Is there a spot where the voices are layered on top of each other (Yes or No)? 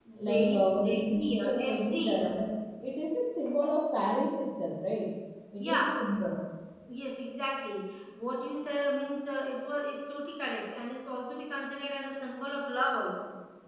Yes